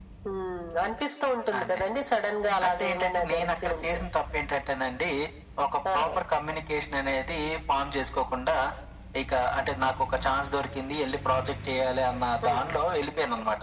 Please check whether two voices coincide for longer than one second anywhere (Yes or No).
Yes